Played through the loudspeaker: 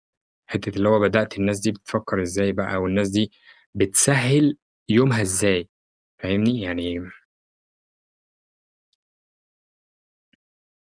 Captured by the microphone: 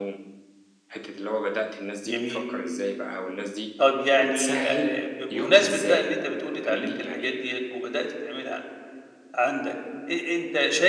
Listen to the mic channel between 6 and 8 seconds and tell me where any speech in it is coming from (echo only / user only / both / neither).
both